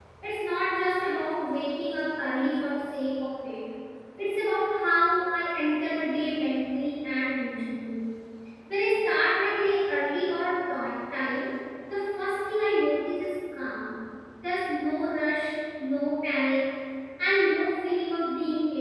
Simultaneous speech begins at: none

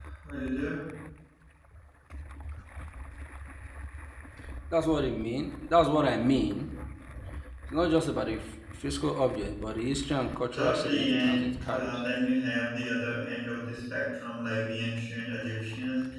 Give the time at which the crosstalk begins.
10.5 s

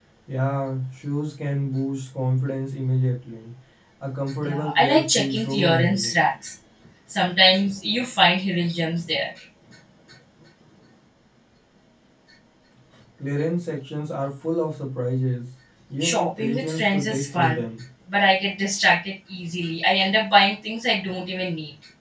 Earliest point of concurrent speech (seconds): 4.4 s

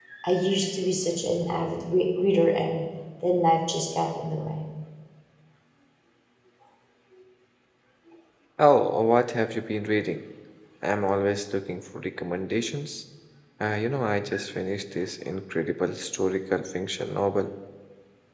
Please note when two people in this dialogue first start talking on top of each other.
none

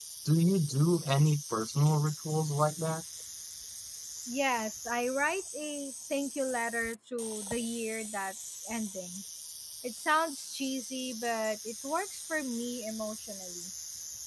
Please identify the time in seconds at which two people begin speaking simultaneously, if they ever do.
none

